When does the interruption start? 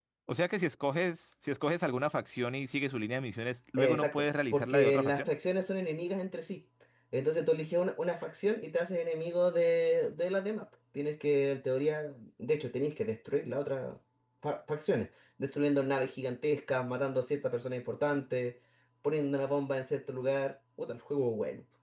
3.8 s

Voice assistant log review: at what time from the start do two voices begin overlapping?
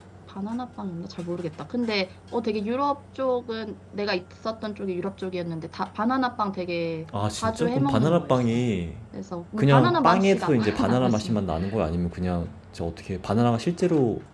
7.3 s

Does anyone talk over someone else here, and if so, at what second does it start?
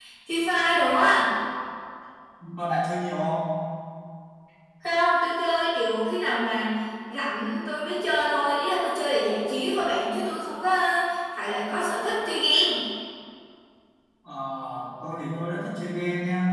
none

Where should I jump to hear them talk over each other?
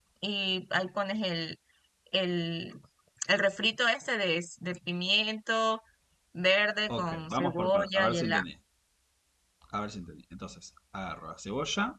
6.9 s

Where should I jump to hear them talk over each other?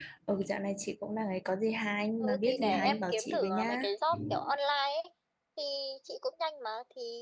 2.2 s

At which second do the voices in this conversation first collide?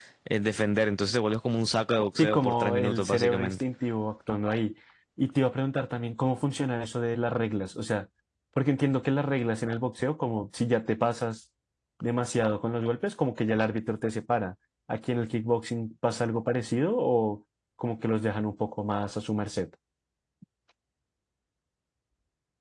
2.2 s

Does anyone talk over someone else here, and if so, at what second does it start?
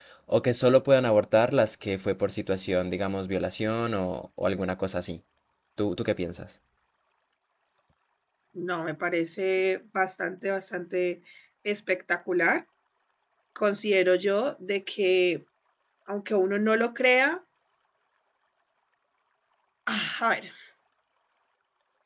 none

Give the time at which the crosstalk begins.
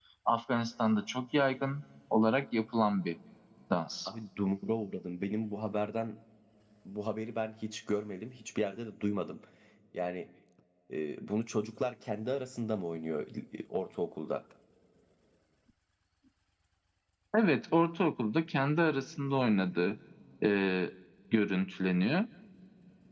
none

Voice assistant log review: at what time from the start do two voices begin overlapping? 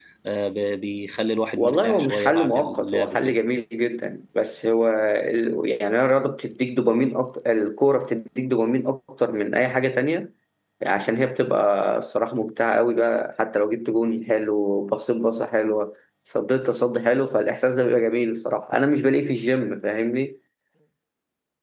1.6 s

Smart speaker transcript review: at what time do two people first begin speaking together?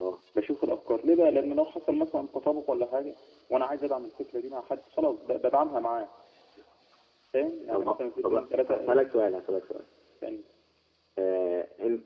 7.7 s

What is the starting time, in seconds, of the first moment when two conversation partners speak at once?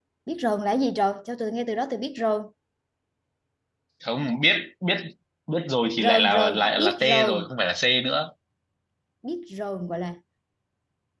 6.0 s

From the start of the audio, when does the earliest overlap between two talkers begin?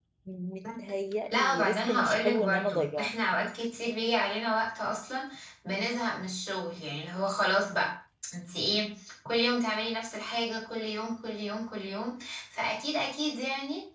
1.3 s

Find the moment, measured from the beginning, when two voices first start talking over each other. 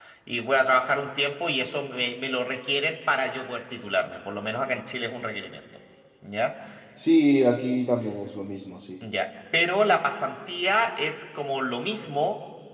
none

